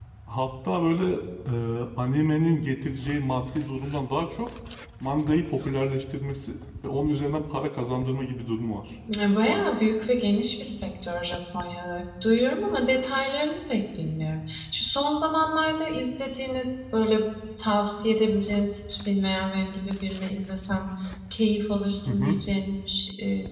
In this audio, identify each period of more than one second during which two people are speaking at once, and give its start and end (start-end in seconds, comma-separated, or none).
none